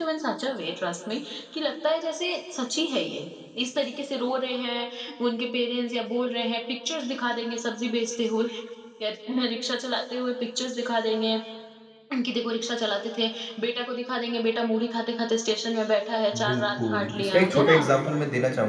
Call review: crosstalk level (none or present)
present